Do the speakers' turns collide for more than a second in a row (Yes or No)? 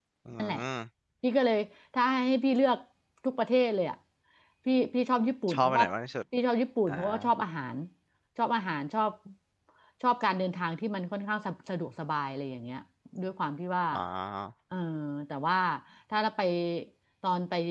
No